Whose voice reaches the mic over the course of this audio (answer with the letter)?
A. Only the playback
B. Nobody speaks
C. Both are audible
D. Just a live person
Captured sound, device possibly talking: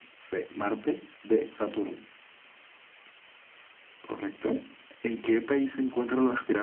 A